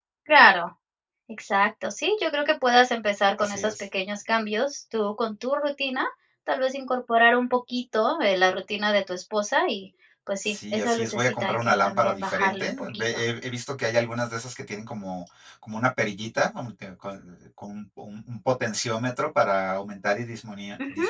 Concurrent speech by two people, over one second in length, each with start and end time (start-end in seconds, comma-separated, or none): 10.4-13.0